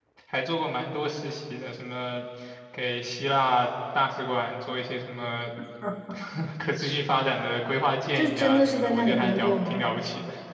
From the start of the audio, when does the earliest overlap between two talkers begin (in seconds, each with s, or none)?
8.2 s